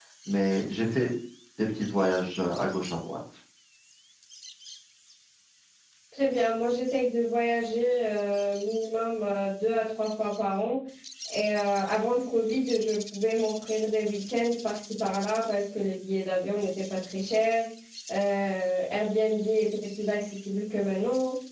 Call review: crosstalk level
none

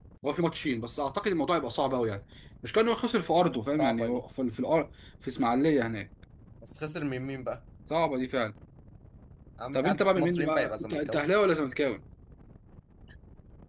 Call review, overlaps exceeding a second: present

